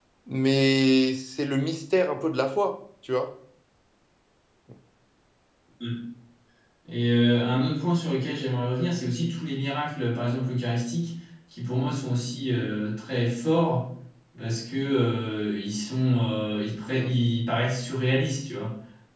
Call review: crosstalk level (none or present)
none